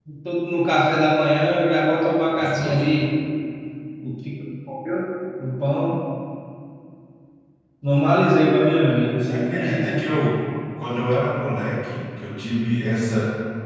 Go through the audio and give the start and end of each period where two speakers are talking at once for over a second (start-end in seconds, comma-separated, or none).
none